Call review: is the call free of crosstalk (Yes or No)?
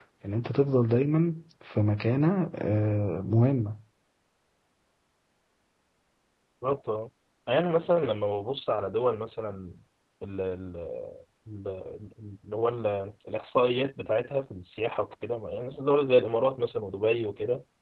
Yes